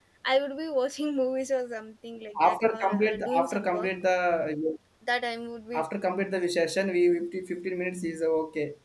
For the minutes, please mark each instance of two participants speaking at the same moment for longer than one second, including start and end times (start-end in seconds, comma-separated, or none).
2.5-3.9